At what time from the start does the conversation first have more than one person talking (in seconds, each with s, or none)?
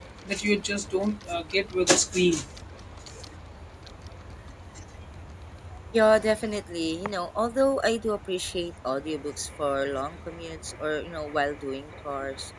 none